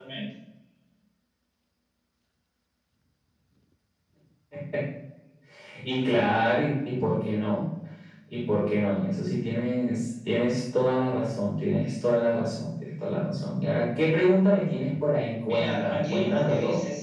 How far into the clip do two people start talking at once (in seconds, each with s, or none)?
15.5 s